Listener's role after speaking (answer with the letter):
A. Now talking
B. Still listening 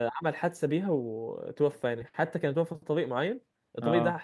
B